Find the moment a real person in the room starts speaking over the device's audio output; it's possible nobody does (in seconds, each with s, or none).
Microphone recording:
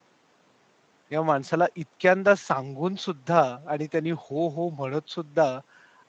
1.1 s